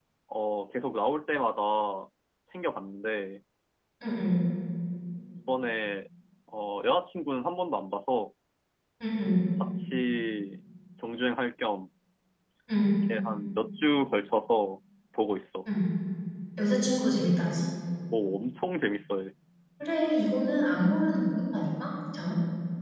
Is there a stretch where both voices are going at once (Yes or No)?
No